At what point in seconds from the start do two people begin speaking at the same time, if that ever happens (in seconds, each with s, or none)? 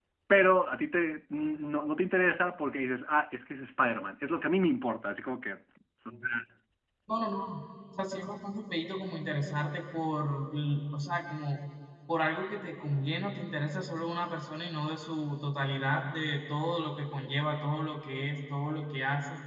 none